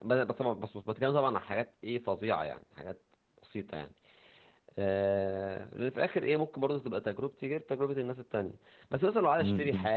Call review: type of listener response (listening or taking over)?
listening